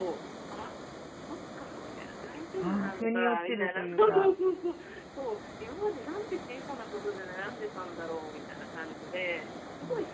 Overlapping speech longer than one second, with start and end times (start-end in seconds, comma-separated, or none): 2.6-4.3